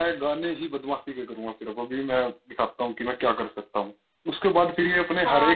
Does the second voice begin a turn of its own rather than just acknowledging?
No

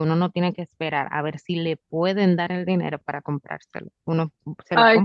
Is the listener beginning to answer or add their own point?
Yes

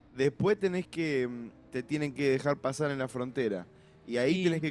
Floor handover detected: No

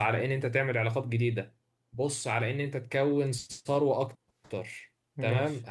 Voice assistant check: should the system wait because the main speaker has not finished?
Yes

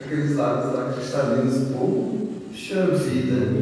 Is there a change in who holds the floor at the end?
Yes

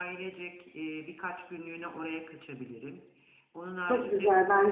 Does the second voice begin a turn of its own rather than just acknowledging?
Yes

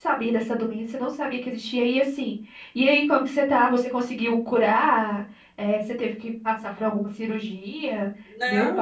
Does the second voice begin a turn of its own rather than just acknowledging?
Yes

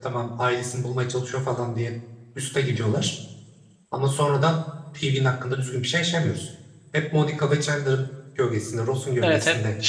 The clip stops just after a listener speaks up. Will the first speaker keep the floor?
No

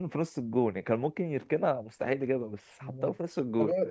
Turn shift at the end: Yes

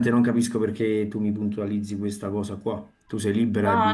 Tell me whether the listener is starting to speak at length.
Yes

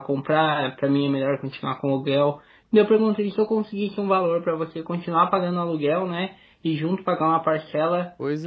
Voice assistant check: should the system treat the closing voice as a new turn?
No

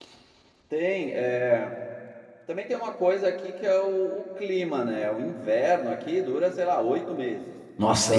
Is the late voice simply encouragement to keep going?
No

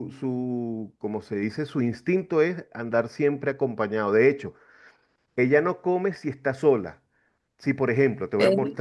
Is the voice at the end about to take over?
No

